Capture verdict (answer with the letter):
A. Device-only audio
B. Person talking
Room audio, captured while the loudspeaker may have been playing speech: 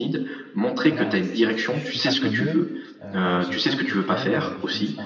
B